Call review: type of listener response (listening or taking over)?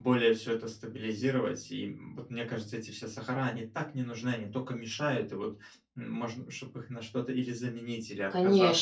taking over